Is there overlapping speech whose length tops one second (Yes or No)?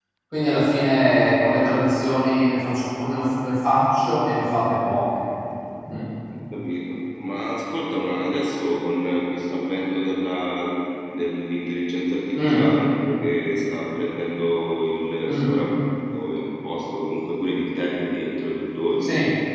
No